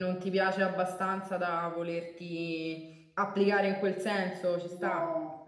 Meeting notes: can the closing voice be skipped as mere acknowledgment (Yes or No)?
No